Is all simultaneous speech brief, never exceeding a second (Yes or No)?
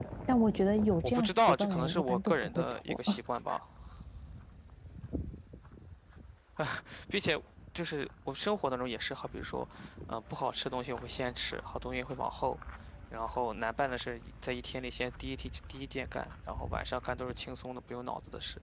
No